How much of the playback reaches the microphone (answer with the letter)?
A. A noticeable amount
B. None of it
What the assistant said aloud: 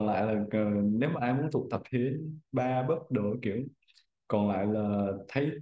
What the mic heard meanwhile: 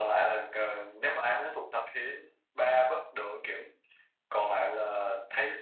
A